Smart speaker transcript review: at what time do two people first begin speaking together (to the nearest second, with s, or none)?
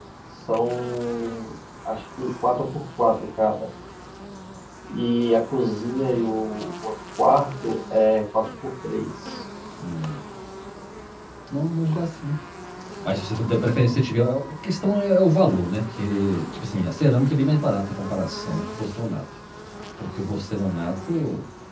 none